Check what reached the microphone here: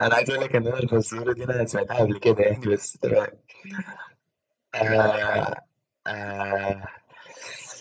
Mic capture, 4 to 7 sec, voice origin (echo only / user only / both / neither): echo only